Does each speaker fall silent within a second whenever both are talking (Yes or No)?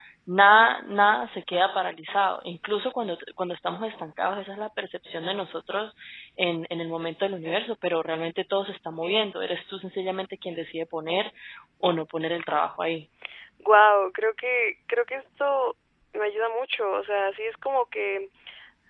Yes